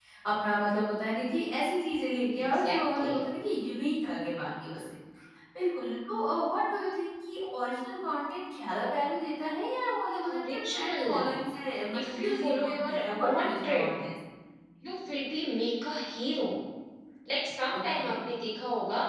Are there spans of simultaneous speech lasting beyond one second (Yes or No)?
Yes